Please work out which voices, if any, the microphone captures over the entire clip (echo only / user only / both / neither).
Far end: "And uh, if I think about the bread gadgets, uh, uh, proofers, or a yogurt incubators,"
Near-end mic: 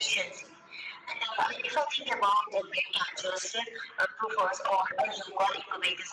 echo only